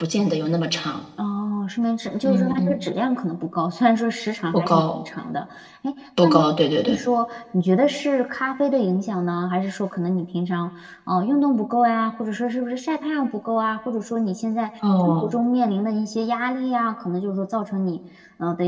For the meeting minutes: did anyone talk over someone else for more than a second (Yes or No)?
No